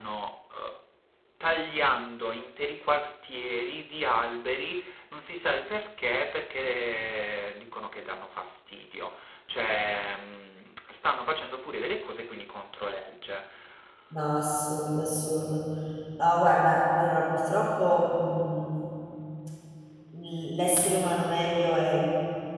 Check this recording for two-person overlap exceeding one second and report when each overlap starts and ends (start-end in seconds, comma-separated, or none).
none